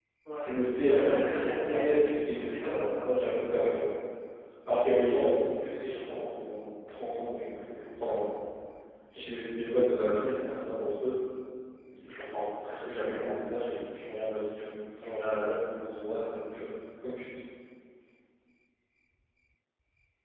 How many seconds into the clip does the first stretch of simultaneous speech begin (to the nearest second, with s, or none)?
1 s